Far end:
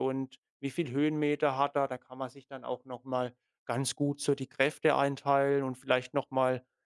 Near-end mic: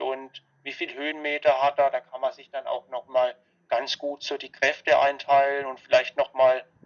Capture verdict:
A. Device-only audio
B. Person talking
A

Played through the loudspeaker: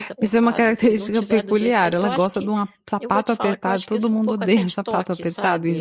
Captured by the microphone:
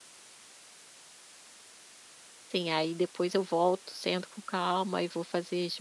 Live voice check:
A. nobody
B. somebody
B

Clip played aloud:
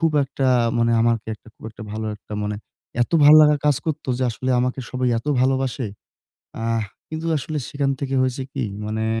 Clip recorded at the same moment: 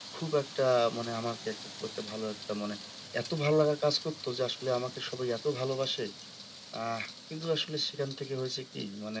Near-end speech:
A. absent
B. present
A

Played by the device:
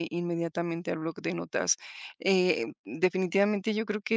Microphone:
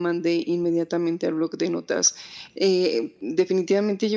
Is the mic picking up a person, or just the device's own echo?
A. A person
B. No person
B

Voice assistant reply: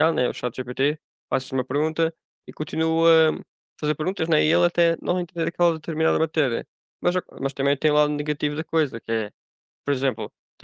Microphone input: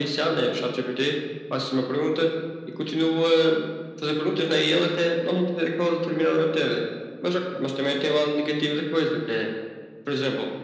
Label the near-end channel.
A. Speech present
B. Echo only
B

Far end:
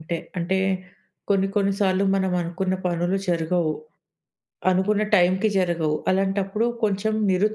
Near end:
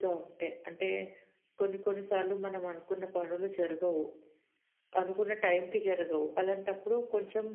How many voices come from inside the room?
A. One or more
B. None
B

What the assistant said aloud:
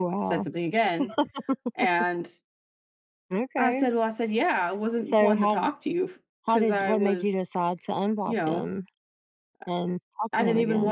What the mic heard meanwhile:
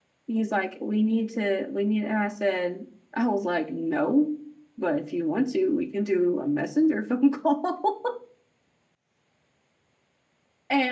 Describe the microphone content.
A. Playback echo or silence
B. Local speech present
B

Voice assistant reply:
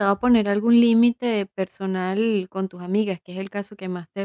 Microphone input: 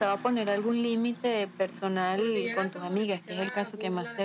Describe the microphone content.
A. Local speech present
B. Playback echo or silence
A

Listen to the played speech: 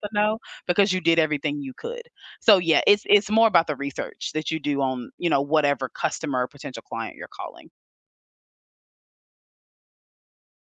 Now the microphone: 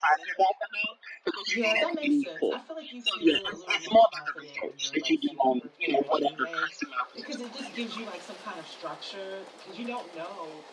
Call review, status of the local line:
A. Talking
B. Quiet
A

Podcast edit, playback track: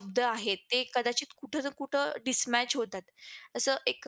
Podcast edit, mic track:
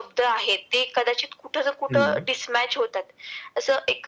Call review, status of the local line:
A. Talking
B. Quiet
A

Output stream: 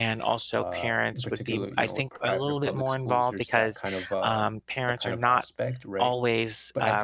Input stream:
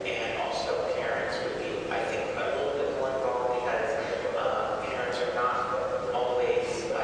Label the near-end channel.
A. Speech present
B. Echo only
B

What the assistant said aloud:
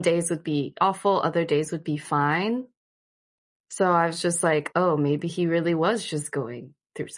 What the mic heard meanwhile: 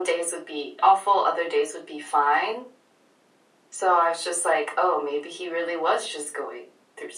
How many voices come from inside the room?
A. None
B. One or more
A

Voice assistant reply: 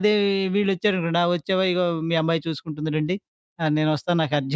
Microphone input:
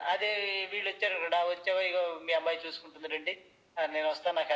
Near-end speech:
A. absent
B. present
A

